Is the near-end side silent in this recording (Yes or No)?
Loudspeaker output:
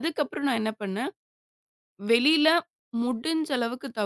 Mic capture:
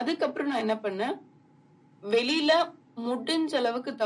Yes